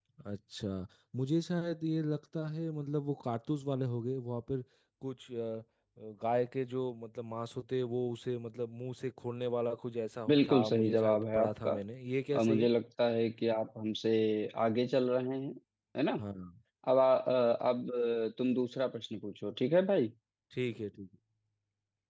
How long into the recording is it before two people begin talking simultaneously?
10.3 s

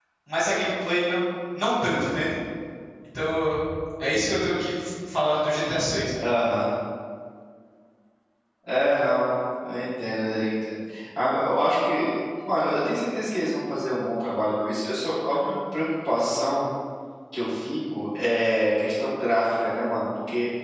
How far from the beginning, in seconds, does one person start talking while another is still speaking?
none

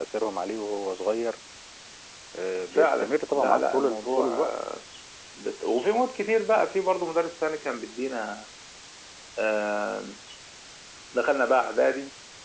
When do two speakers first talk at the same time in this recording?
2.7 s

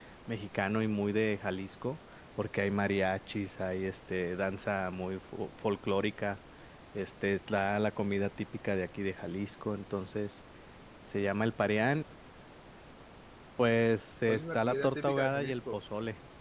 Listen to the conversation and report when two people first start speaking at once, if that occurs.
14.3 s

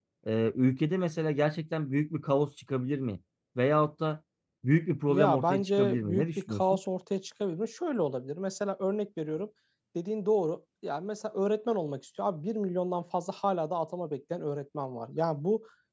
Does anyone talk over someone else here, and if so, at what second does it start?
5.1 s

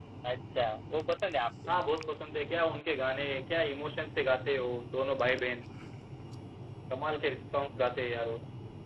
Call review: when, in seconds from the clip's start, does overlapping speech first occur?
none

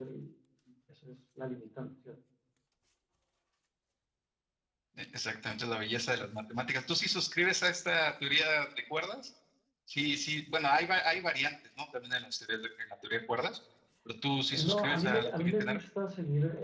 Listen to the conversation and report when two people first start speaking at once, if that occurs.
14.5 s

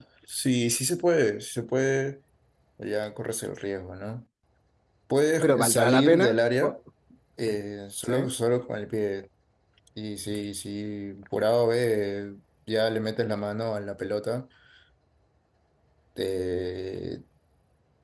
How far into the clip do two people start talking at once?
5.4 s

